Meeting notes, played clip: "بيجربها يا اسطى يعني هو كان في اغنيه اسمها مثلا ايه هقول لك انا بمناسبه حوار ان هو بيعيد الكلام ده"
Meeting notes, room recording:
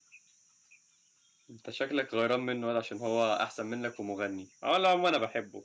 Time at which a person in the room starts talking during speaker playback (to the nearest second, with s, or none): 2 s